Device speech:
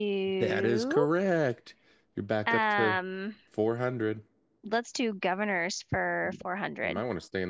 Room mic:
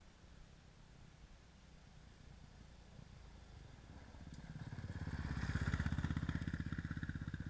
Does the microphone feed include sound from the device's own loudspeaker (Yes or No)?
No